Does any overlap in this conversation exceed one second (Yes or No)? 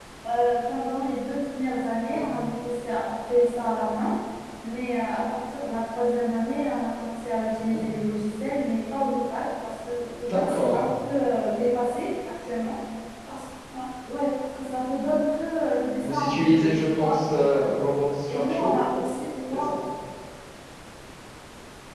Yes